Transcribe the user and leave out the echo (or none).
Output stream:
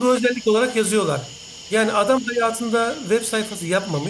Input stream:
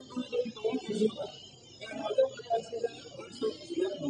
none